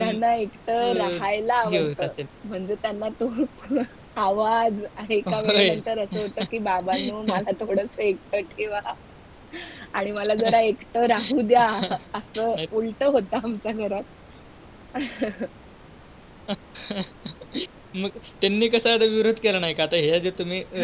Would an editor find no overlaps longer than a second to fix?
Yes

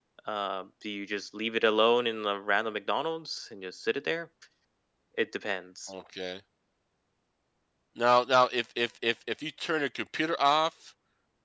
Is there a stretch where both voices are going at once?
No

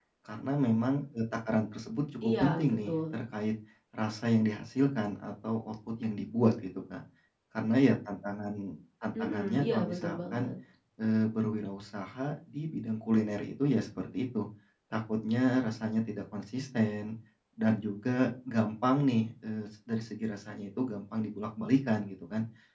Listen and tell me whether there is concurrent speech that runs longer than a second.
Yes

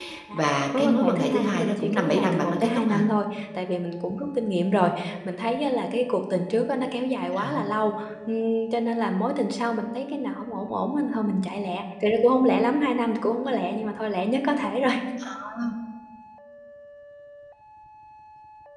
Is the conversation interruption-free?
No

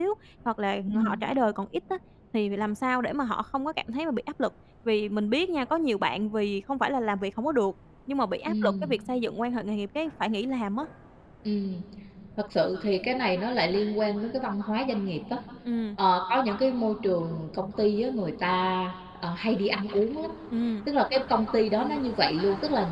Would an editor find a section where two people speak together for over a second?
No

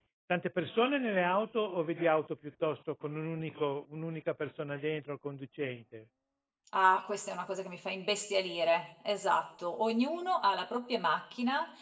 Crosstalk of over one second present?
No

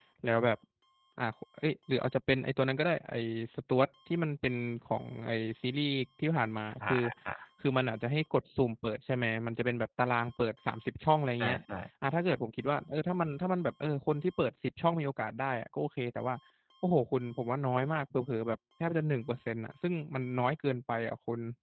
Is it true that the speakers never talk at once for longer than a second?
Yes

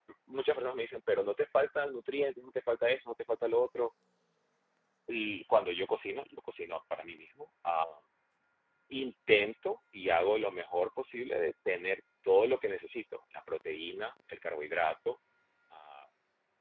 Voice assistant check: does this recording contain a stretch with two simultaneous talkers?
No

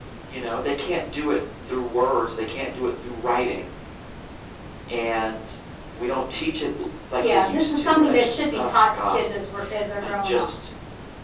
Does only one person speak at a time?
No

